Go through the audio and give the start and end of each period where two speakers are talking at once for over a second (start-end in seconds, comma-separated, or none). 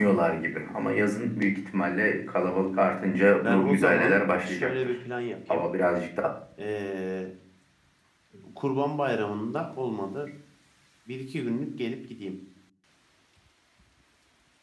3.4-4.9